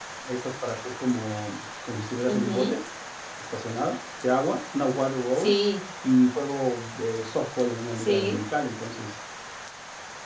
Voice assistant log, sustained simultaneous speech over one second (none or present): none